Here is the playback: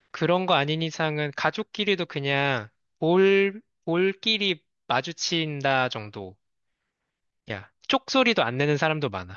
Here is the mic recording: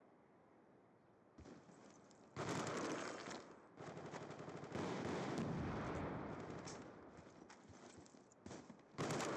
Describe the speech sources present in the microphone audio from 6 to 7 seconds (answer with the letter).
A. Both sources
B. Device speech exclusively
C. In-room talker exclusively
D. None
D